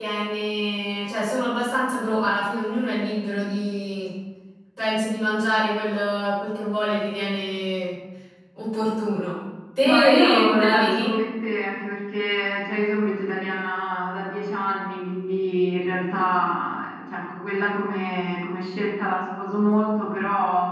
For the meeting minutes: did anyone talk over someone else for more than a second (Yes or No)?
Yes